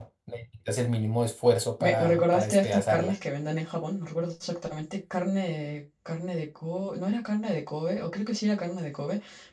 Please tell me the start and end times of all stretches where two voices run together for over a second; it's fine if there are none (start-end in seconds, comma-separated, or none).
1.8-3.1